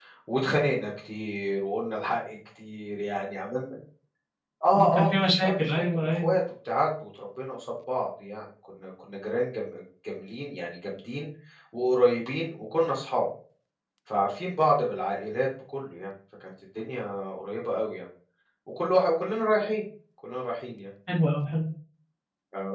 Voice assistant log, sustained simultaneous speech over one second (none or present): present